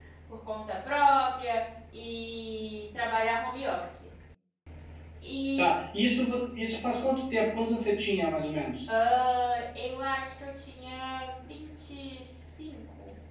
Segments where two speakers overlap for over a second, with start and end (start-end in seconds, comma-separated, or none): none